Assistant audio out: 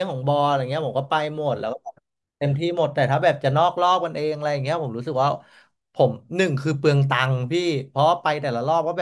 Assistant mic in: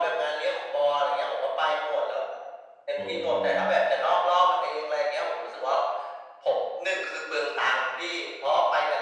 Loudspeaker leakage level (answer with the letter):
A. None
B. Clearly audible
B